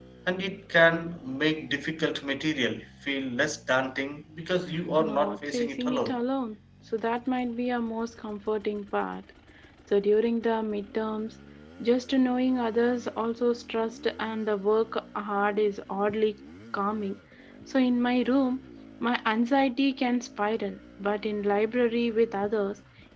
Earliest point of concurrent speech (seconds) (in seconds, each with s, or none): 5.0 s